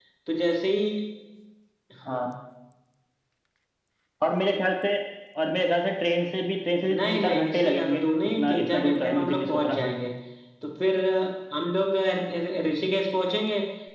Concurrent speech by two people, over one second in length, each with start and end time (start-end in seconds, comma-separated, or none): 7.0-10.0